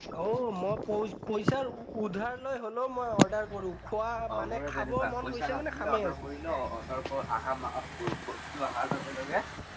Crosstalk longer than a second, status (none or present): present